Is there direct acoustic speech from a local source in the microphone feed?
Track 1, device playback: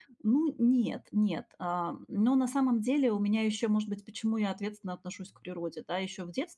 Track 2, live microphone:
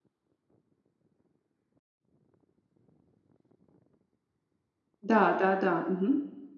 Yes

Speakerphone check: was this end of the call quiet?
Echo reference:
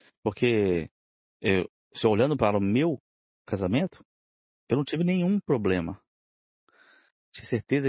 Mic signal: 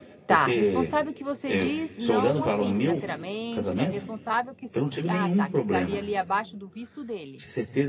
No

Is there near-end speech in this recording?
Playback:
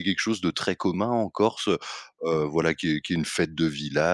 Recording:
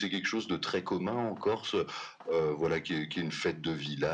No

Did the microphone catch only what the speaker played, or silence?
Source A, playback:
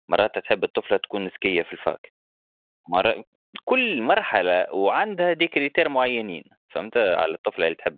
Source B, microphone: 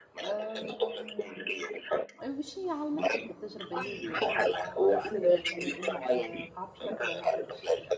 No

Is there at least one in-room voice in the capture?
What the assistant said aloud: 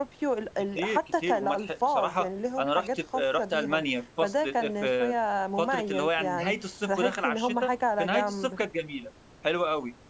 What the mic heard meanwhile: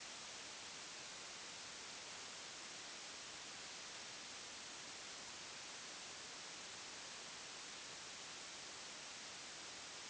No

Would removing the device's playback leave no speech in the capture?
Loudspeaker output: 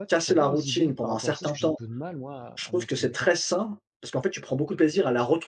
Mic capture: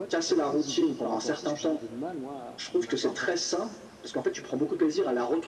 No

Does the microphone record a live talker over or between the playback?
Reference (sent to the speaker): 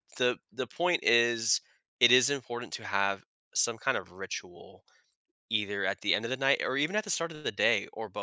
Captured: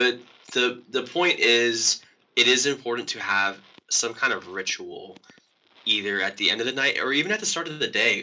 No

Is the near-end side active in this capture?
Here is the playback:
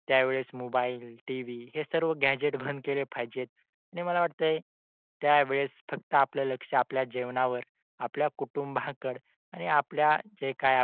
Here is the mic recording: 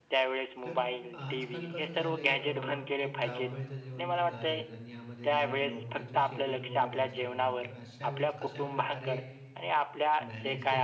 Yes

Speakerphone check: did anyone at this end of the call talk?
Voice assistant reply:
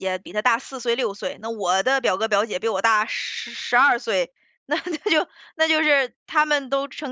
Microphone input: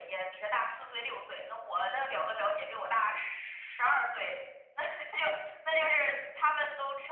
No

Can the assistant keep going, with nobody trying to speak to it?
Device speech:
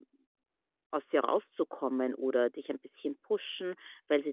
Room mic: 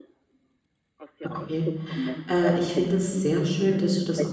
No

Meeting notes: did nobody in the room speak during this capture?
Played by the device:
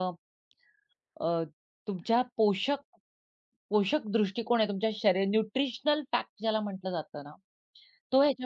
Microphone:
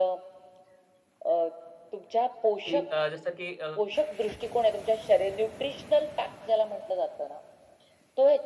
No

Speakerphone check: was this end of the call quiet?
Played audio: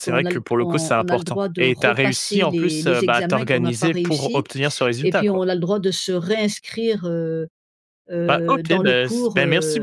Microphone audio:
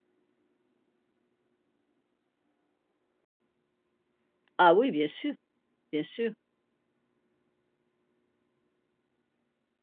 No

